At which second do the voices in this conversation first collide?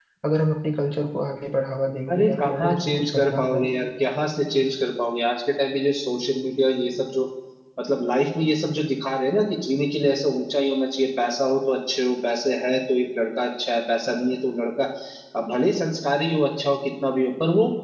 2.1 s

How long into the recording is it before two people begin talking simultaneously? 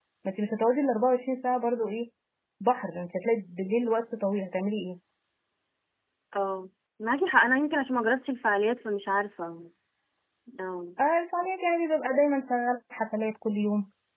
none

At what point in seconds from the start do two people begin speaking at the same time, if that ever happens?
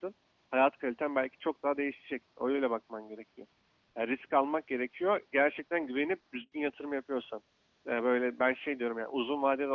none

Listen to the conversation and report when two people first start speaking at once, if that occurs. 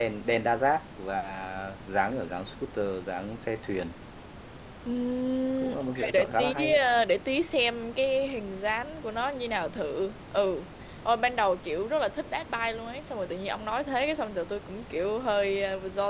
5.6 s

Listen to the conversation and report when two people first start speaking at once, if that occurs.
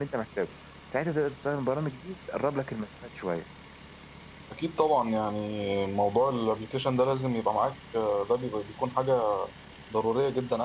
none

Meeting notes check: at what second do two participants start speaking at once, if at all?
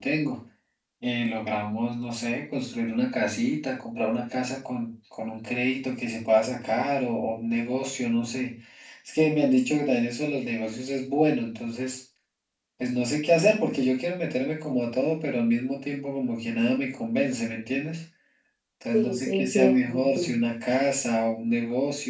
18.9 s

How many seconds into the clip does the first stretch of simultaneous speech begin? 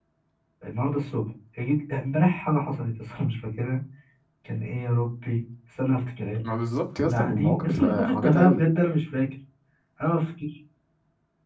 7.0 s

